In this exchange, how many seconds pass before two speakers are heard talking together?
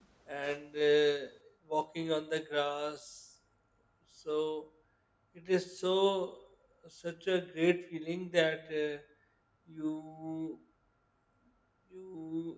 none

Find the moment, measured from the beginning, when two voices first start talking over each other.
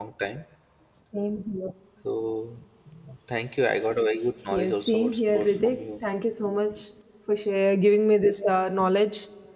4.5 s

